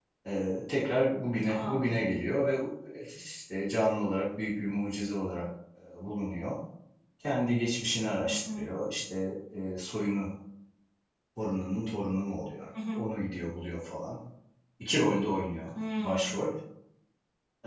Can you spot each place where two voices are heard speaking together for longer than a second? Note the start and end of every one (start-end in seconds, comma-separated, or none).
none